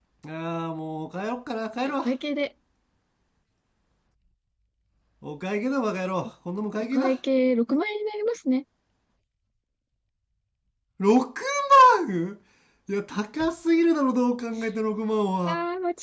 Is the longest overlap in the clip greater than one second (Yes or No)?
No